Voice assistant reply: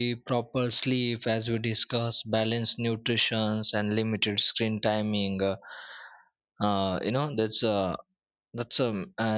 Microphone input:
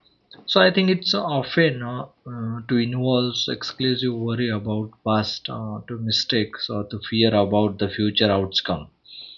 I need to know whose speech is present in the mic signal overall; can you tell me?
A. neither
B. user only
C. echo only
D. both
B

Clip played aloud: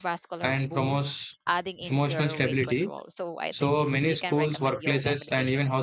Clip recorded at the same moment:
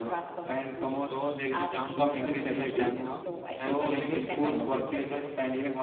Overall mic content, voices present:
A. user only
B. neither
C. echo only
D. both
D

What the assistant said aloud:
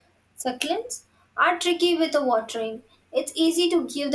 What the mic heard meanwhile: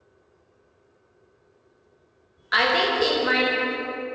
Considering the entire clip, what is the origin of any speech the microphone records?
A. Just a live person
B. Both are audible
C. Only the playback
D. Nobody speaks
A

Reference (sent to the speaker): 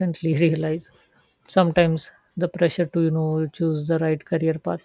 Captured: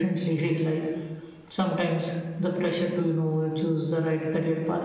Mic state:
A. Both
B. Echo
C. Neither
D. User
B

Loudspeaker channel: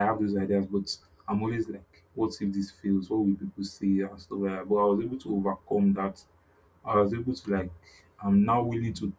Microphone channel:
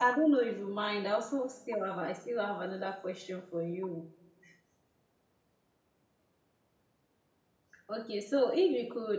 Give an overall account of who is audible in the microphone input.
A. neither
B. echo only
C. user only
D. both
C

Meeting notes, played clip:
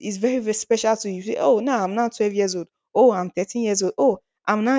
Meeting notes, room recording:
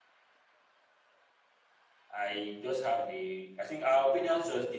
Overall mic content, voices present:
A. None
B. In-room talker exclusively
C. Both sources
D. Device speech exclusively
B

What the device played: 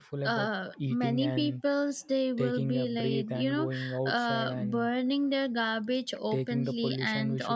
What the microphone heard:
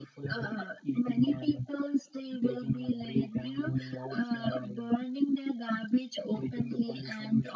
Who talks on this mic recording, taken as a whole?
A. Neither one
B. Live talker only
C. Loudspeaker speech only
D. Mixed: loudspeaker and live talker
C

